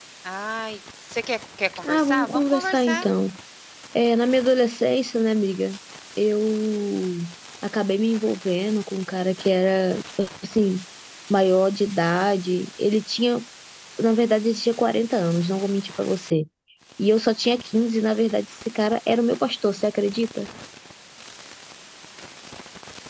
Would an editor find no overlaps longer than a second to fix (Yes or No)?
No